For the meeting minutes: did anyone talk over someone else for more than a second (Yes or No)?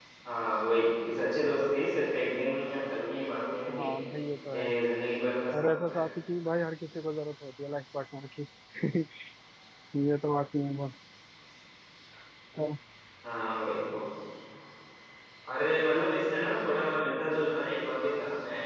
No